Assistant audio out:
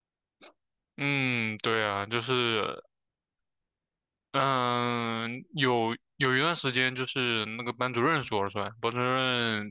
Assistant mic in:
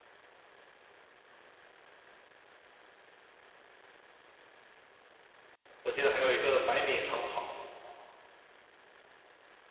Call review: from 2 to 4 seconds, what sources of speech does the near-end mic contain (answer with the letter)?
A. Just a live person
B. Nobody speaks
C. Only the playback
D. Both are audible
B